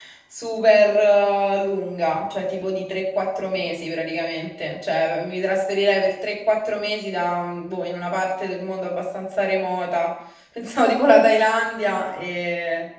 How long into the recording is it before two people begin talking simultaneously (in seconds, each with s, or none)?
none